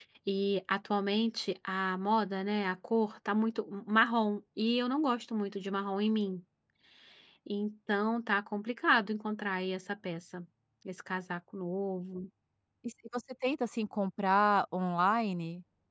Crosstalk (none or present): none